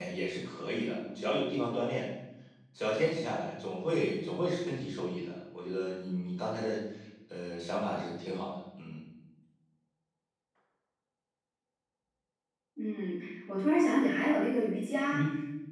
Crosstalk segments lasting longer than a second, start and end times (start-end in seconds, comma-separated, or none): none